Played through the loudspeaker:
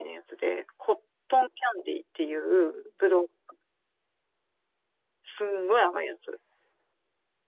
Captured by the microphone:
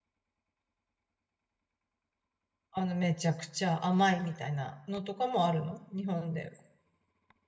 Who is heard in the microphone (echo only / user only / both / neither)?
user only